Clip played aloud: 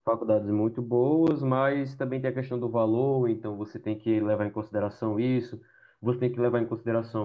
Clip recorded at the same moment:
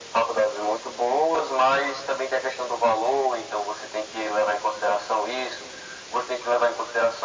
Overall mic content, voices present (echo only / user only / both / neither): echo only